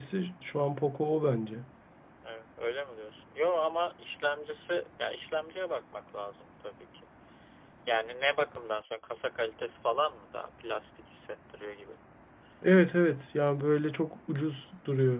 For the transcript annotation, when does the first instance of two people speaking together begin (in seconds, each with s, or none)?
none